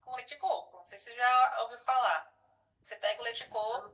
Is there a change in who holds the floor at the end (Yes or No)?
No